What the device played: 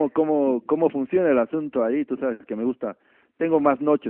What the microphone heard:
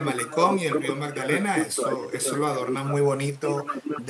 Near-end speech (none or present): present